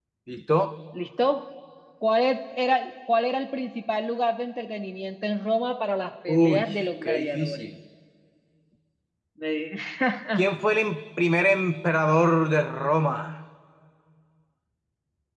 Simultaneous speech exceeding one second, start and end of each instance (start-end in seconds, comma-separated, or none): 6.3-7.6